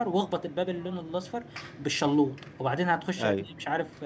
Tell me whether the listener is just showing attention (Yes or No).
Yes